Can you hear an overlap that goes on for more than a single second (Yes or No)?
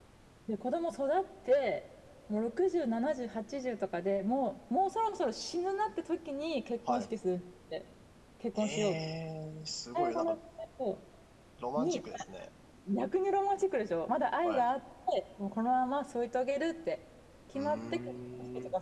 Yes